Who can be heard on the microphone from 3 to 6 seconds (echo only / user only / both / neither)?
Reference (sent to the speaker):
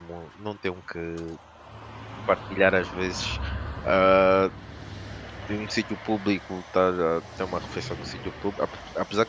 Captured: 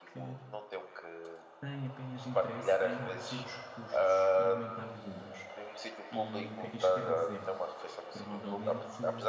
both